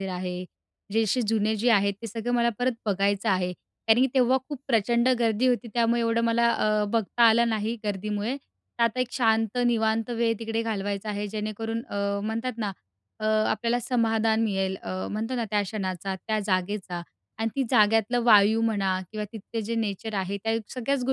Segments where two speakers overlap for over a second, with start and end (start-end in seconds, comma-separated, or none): none